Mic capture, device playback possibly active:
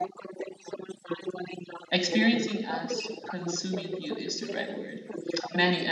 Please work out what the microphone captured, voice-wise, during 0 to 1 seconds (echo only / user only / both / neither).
echo only